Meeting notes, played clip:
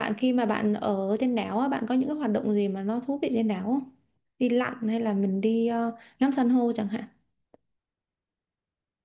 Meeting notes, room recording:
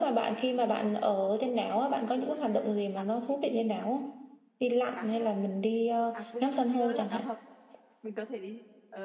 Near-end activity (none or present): present